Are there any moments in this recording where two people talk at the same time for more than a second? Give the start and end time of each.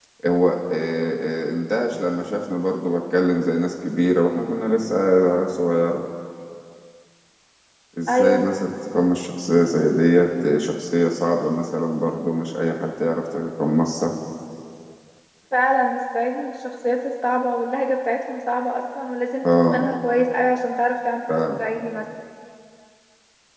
none

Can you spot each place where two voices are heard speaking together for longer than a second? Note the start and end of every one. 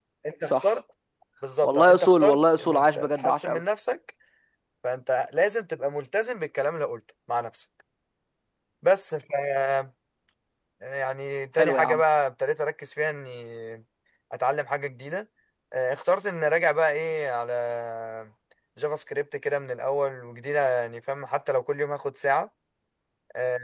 1.6-3.6

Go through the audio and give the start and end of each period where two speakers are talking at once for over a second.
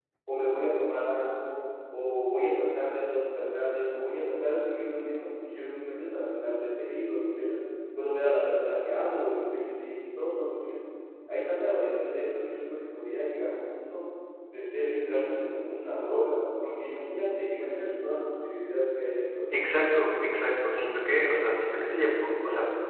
none

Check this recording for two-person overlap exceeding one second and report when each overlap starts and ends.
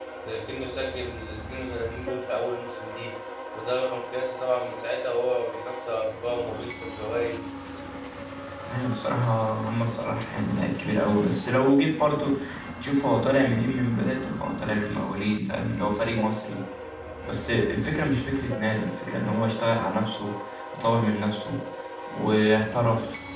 none

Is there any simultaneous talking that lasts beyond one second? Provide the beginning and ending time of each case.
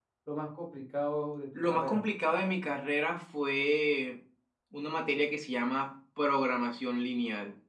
none

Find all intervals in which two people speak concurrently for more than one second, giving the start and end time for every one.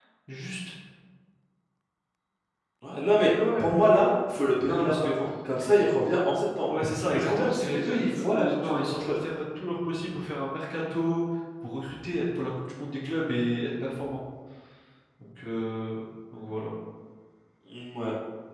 7.1-9.2

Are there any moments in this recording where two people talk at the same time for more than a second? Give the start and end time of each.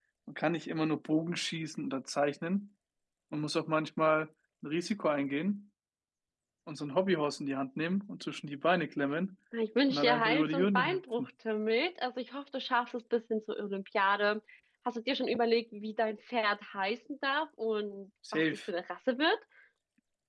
9.9-11.3

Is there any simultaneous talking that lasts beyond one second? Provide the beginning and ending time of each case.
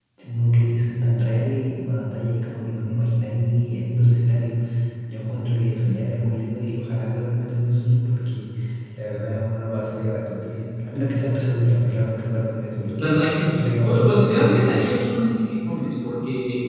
13.0-14.9

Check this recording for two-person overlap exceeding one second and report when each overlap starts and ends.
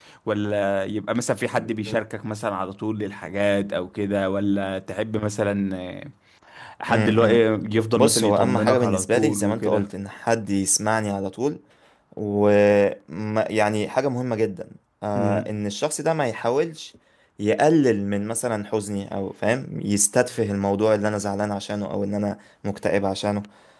7.9-9.9

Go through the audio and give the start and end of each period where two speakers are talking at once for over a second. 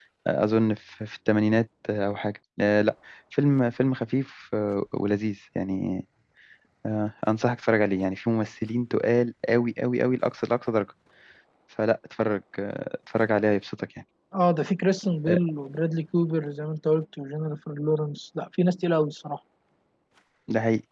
none

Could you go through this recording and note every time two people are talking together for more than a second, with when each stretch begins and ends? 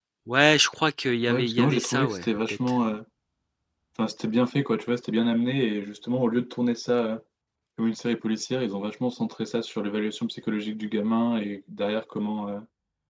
1.3-2.6

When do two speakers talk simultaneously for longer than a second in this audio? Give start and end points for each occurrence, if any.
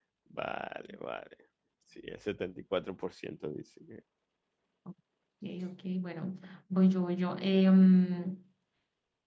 none

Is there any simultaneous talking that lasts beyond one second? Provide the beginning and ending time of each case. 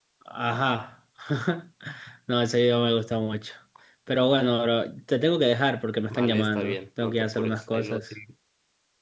6.1-8.0

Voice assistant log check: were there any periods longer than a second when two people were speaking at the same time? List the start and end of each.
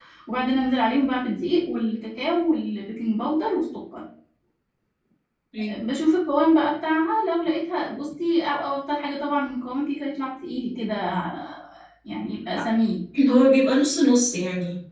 none

